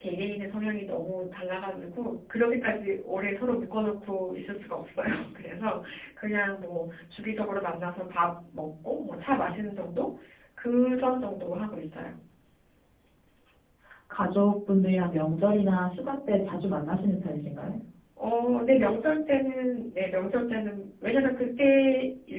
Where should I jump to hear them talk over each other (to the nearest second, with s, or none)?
none